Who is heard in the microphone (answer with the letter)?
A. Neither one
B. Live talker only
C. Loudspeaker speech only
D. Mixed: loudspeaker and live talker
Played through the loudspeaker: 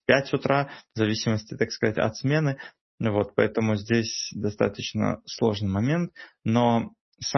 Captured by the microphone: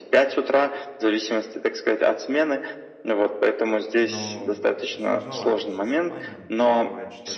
D